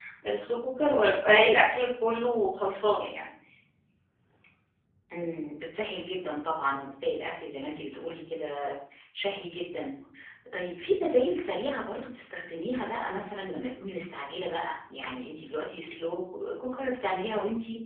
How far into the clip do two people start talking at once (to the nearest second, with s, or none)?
none